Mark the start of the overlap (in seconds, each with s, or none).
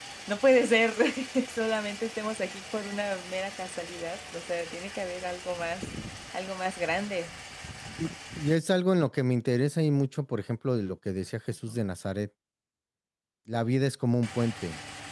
none